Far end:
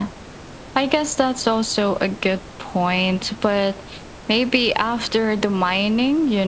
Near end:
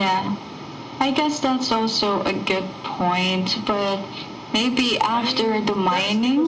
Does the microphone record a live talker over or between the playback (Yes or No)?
Yes